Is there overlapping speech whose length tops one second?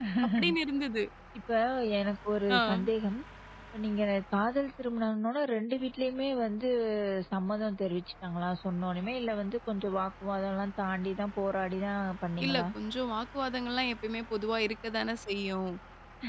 No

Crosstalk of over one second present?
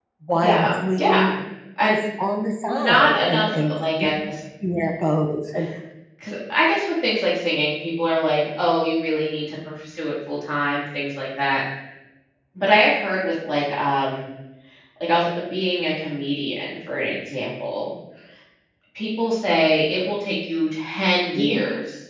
Yes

